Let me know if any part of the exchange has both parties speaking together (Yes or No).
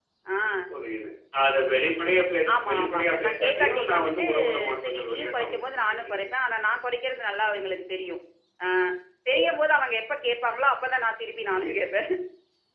Yes